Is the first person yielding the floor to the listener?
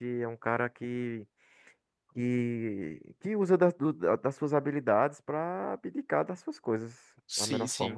Yes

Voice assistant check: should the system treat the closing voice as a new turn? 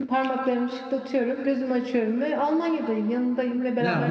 Yes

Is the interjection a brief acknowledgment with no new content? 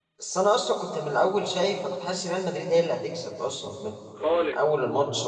Yes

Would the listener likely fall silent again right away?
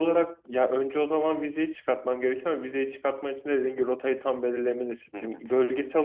Yes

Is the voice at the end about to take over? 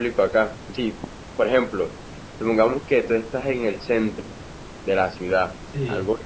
No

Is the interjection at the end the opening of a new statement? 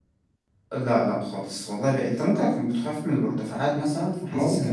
Yes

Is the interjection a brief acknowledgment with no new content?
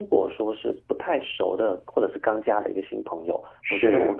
Yes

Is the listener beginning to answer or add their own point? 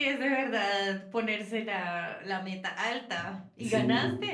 Yes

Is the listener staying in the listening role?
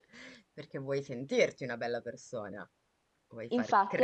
No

